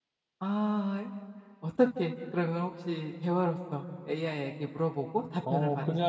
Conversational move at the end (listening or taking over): taking over